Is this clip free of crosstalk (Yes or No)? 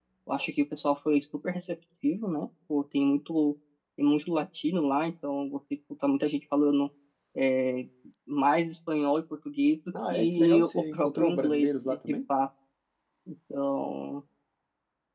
No